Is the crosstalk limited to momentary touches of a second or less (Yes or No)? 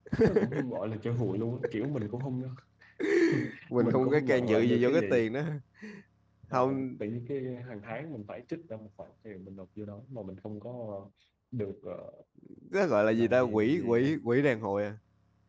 No